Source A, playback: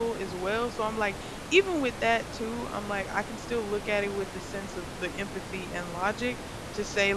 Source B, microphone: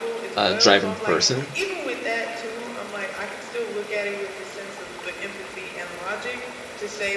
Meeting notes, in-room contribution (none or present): present